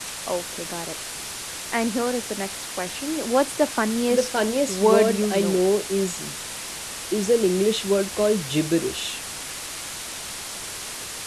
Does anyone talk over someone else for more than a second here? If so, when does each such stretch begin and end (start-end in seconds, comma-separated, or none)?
4.1-5.6